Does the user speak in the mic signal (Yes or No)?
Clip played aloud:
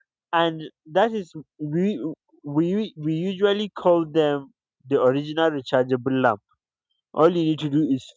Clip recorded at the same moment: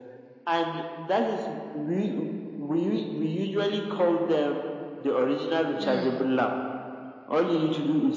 Yes